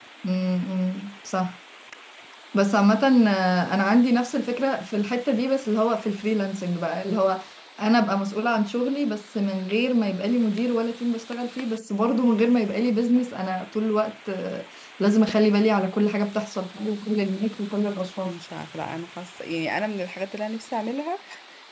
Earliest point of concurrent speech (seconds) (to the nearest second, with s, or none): none